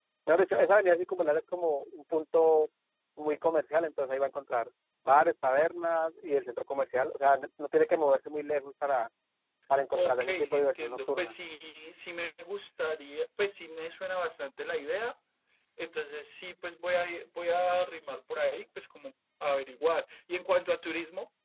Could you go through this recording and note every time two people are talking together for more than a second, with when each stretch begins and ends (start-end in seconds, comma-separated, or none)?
9.9-11.4